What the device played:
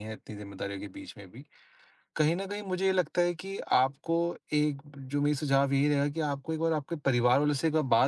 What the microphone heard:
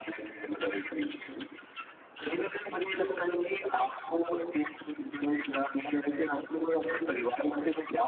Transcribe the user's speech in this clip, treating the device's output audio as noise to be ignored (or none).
none